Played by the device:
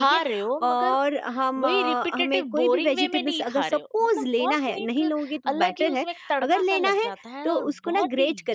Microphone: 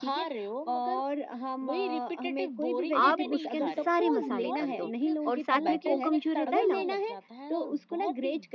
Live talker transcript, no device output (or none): आप उसके अंदर सारे मसाले कर दो और साथ में कोकम जो रहता है ना,